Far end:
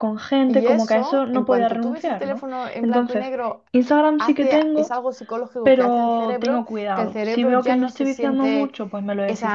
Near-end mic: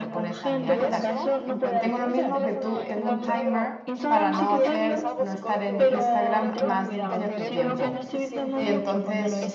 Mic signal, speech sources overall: both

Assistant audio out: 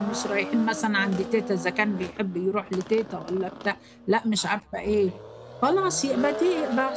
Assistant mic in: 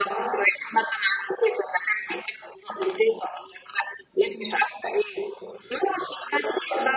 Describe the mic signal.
echo only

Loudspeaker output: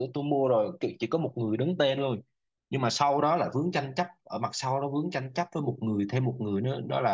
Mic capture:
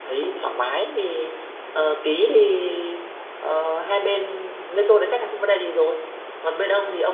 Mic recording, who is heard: user only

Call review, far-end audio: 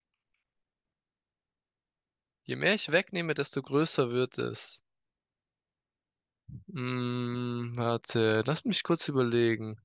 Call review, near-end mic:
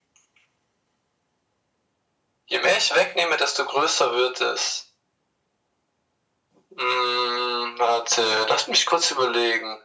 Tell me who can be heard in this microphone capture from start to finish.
echo only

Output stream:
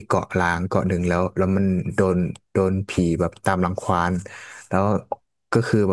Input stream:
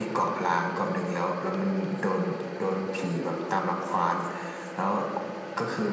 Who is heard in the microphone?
echo only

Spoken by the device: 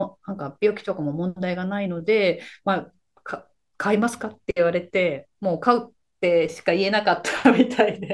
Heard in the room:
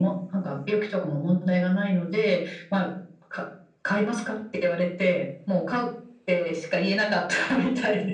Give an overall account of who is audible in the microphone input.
echo only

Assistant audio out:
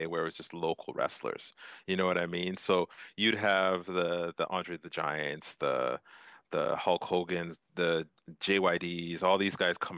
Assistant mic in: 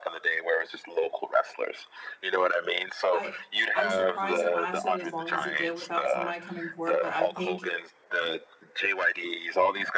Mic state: both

